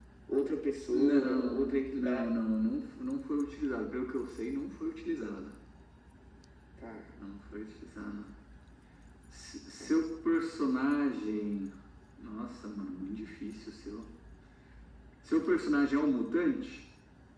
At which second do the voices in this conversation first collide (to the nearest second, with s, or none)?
1 s